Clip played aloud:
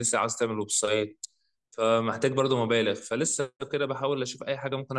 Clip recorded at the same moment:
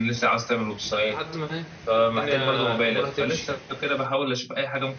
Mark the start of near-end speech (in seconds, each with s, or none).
1.1 s